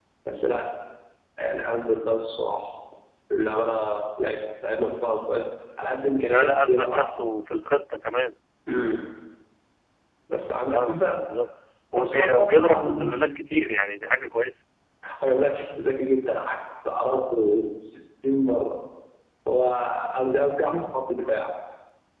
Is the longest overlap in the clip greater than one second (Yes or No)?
Yes